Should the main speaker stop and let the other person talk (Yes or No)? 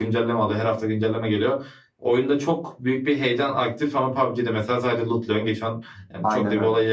No